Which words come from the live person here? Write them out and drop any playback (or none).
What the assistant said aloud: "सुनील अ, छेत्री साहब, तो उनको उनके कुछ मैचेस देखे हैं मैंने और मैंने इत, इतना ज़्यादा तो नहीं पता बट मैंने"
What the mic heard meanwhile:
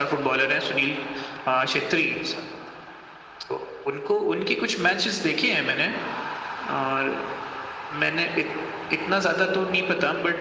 none